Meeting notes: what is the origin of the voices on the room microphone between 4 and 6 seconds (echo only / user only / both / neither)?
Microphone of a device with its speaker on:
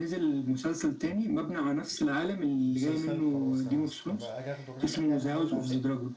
both